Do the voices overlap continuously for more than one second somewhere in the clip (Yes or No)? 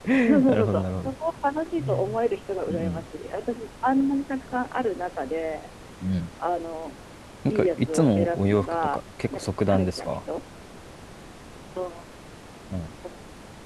Yes